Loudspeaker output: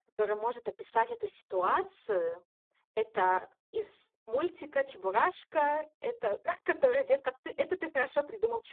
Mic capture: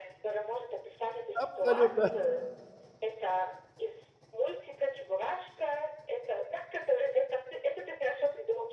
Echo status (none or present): present